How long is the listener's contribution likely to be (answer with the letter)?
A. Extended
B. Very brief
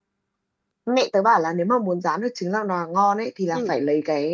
B